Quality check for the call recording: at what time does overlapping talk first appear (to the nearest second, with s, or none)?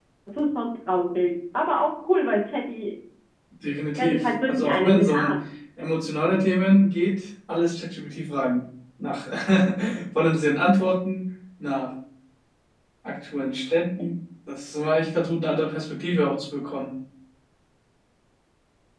4 s